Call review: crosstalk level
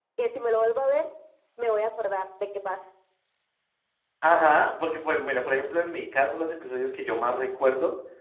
none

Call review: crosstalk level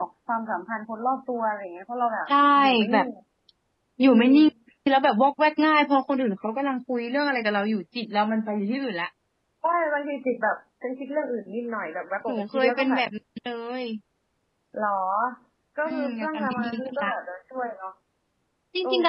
present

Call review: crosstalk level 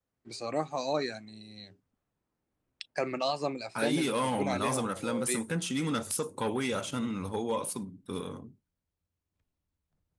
present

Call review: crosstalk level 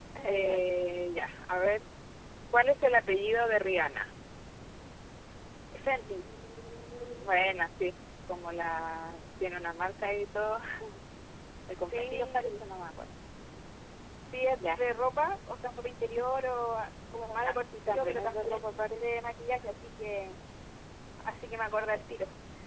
present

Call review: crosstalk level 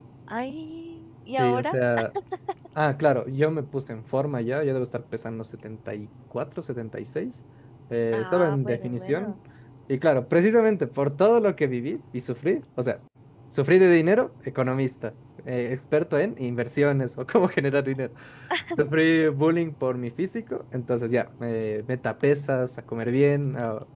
present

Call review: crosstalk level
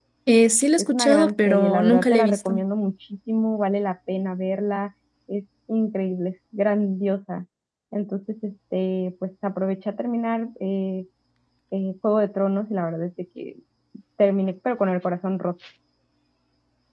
present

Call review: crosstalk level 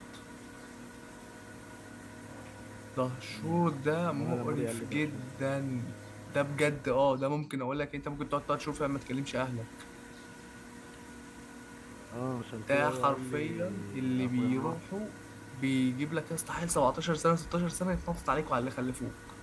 present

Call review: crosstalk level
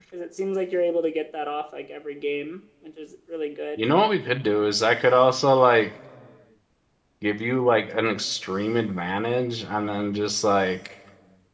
none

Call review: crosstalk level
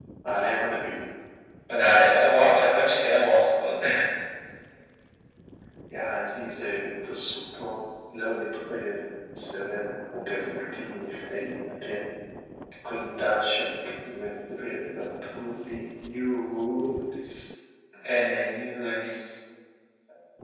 none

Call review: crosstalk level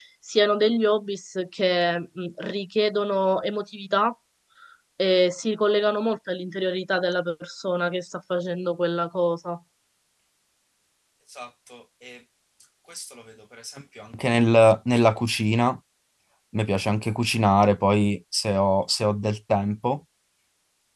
none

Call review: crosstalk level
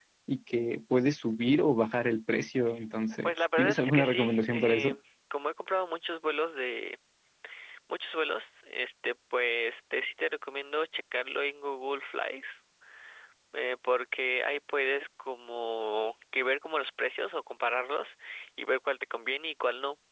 present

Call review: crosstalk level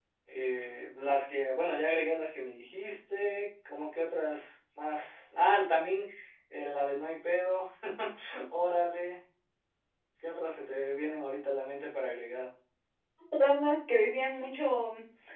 none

